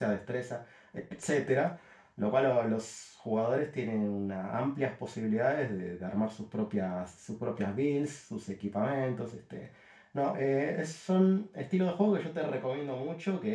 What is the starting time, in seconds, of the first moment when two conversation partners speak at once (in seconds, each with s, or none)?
none